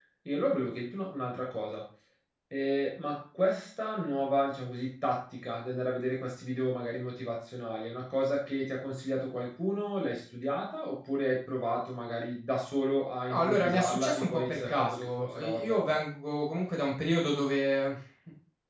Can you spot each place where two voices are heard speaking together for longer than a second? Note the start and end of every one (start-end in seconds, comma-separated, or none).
13.3-16.0